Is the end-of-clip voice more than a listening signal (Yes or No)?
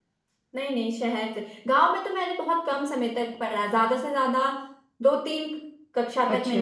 No